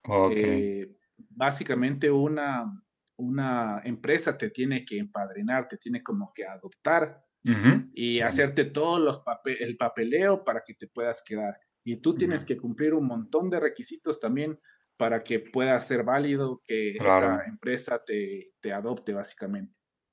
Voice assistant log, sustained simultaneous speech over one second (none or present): none